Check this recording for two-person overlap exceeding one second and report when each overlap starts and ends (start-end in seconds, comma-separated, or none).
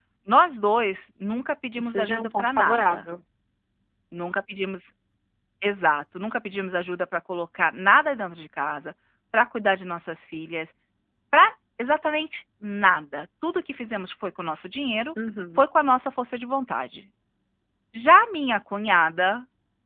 1.8-3.0